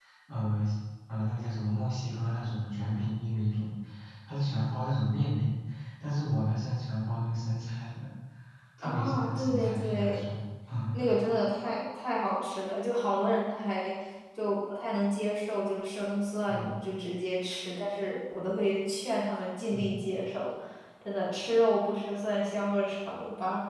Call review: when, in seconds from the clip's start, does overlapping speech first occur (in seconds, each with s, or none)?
8.8 s